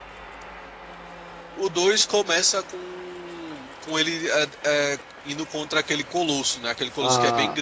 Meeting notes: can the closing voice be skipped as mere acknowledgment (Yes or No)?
No